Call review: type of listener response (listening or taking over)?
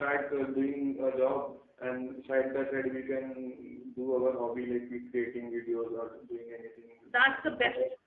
taking over